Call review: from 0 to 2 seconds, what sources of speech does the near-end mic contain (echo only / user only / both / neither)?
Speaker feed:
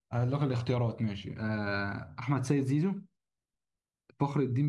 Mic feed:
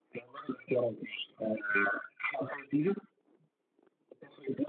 echo only